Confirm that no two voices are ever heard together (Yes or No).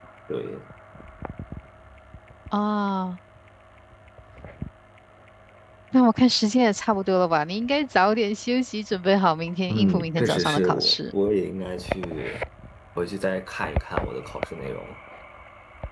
No